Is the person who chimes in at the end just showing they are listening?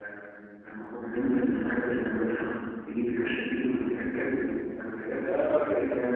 No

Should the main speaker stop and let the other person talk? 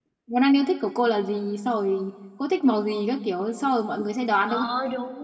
Yes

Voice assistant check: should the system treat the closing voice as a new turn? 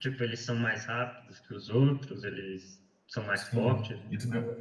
Yes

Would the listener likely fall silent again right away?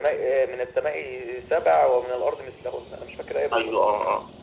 No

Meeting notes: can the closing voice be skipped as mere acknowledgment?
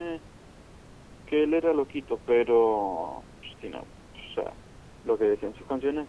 Yes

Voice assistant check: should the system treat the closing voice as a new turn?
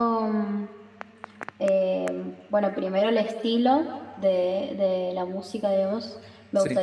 No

